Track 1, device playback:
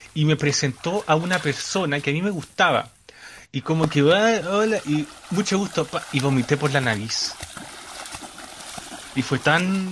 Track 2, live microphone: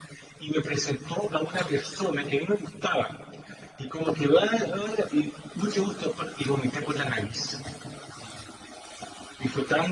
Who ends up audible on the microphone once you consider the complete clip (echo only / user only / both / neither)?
echo only